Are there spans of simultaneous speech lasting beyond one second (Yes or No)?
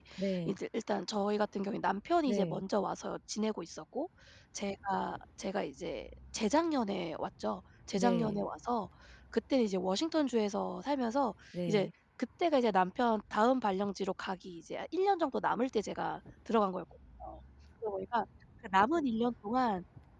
No